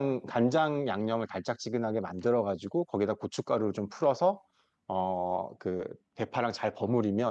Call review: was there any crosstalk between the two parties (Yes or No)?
No